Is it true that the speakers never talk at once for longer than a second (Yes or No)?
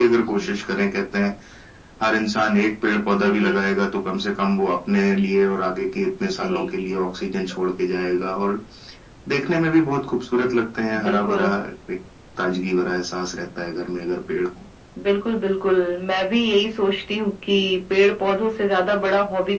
Yes